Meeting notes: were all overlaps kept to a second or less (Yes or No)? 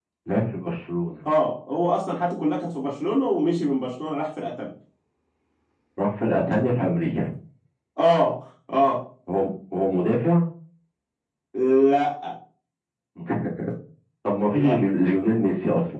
Yes